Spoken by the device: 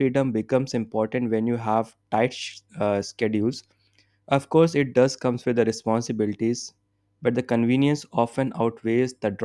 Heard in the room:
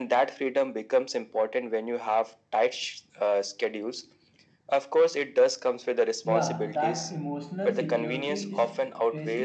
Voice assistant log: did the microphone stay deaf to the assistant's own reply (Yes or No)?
No